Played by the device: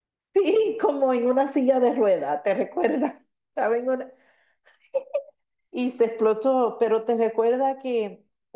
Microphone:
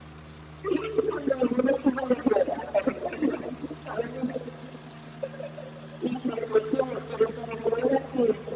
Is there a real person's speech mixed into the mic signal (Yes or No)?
No